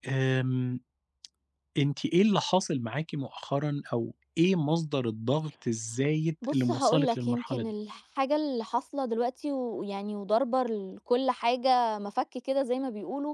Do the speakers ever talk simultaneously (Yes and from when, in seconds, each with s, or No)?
Yes, from 6.4 s